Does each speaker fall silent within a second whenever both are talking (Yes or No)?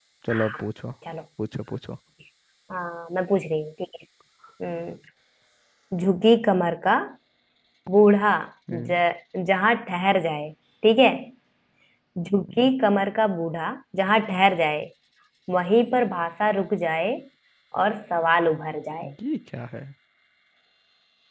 Yes